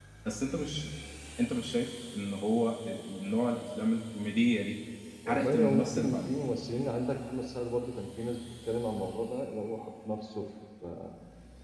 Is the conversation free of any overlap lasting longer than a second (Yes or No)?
No